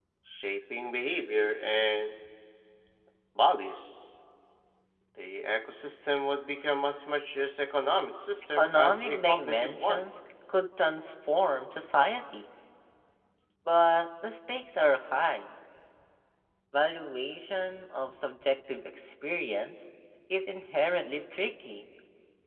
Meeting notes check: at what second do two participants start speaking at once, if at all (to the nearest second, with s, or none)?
9 s